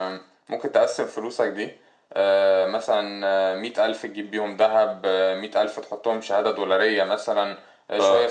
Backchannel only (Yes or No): Yes